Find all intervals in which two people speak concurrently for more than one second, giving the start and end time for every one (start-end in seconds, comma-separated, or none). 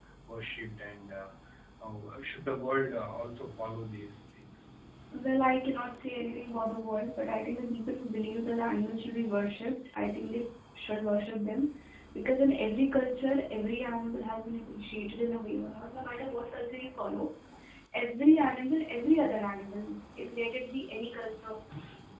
none